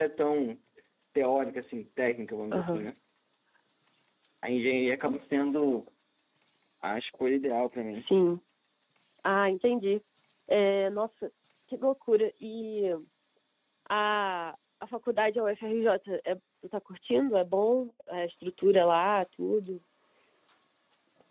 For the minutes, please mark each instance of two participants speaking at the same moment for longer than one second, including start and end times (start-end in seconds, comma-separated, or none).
none